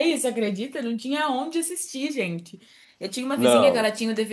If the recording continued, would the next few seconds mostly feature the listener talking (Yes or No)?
No